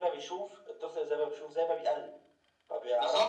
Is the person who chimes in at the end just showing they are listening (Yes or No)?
No